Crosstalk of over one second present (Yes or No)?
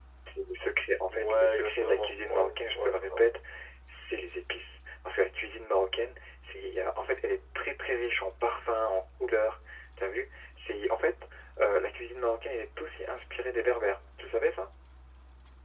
Yes